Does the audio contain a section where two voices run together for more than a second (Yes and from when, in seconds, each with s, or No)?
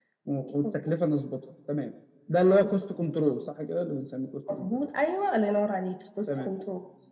No